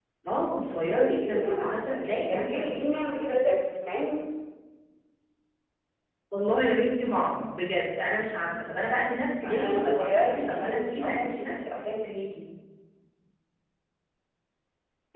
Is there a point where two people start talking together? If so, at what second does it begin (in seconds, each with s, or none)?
0.7 s